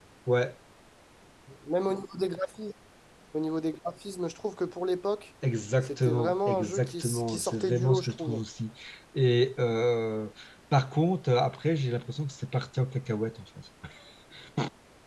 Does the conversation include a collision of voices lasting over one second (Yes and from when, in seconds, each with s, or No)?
Yes, from 5.8 s